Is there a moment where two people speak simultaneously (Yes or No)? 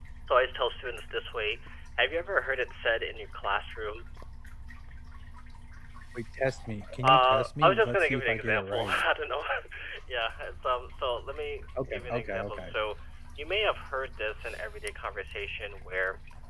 Yes